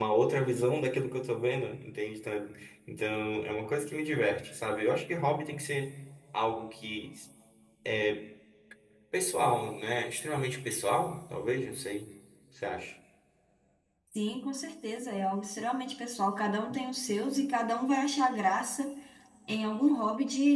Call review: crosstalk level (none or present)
none